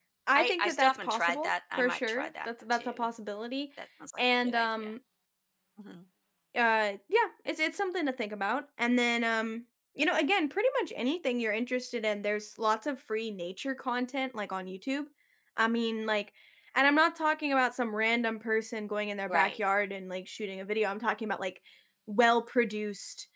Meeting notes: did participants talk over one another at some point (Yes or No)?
Yes